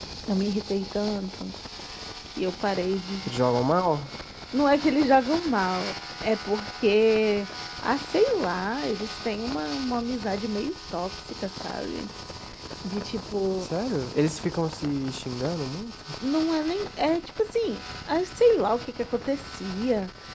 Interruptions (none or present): none